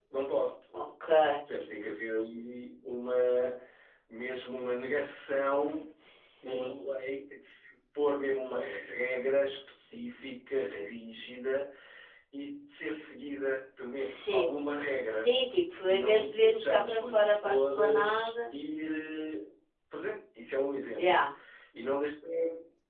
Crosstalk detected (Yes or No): Yes